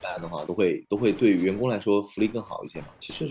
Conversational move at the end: taking over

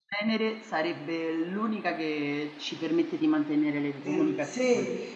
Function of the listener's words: taking over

